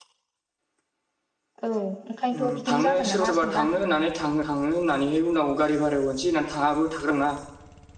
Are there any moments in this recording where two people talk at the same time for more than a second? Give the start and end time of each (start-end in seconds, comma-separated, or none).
2.3-3.7